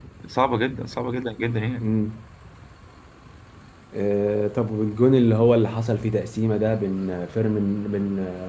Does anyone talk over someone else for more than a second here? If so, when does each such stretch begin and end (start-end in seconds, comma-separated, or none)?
none